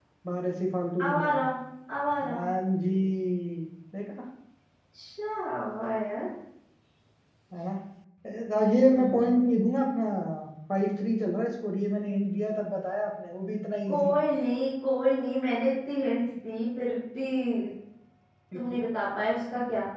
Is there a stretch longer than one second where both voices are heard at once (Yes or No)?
No